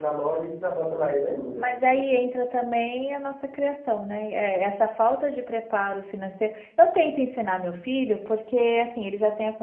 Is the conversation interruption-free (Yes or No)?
Yes